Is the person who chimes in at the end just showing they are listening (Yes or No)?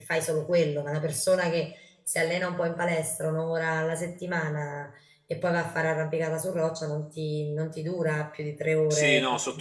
No